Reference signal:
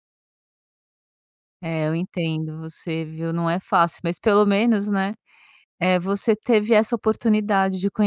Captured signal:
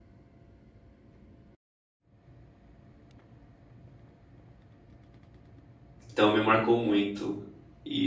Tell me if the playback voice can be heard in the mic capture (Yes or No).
No